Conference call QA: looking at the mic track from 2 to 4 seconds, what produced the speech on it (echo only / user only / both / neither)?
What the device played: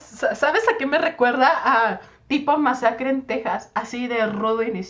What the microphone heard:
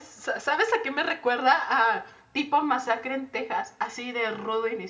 echo only